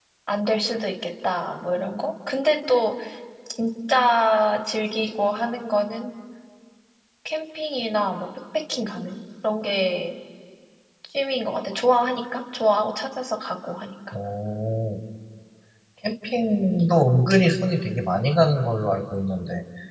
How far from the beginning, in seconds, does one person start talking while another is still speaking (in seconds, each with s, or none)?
none